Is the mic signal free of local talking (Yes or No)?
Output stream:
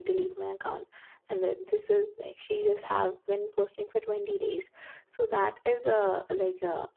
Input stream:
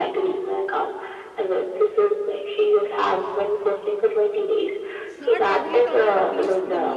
No